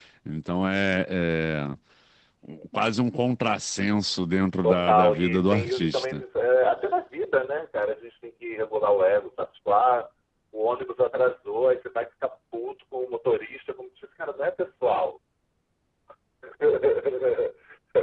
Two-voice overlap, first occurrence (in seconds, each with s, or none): 4.6 s